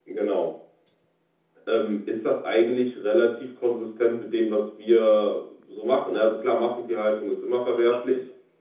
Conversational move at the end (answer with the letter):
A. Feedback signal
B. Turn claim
A